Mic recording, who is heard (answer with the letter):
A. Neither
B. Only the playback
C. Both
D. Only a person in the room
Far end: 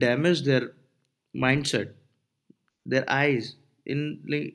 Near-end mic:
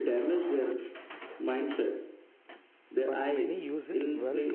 C